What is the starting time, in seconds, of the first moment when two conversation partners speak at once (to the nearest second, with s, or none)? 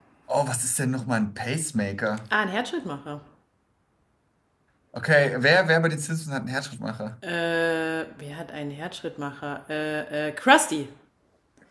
none